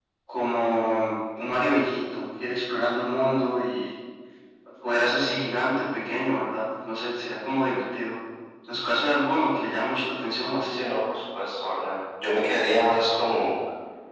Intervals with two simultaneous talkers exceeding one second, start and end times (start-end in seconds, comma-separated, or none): none